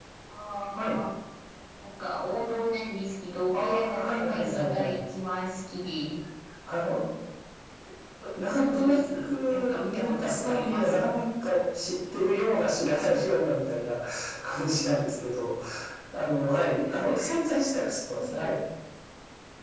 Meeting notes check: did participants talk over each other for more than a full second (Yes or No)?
Yes